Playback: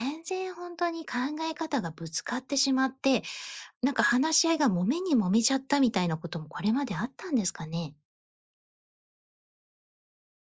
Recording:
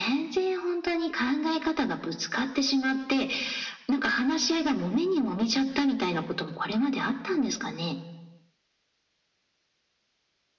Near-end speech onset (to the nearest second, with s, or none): none